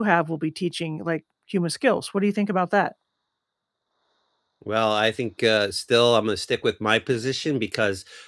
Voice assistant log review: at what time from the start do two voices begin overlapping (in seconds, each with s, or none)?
none